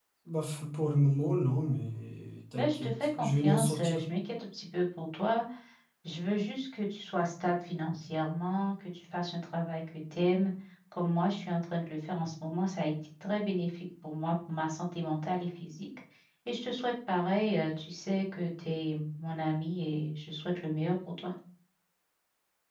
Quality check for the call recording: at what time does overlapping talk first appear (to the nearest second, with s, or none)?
3 s